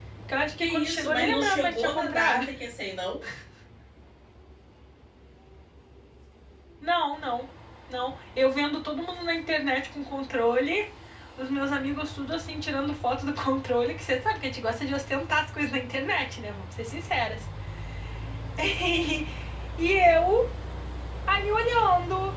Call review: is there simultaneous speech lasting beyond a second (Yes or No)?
Yes